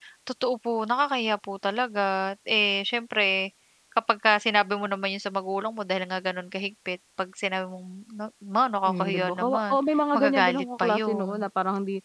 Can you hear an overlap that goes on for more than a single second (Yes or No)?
Yes